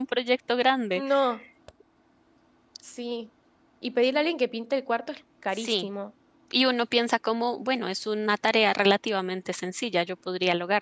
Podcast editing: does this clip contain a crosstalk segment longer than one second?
No

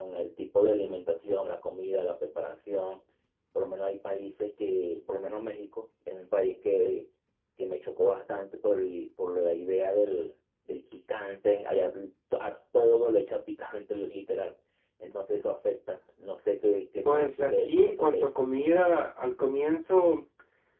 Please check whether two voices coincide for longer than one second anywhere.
Yes, from 17.0 s

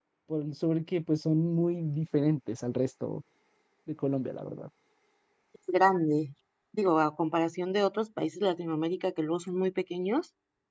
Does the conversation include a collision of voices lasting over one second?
No

